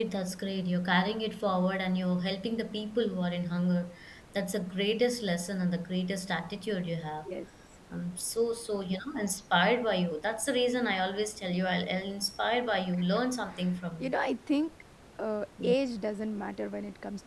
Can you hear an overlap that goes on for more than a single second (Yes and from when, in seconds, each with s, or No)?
No